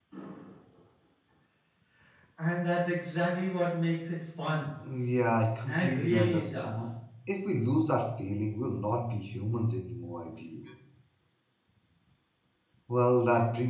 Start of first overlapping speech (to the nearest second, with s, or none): 6 s